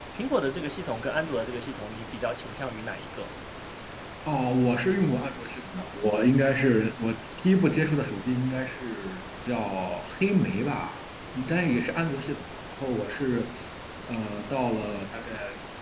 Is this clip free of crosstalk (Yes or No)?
Yes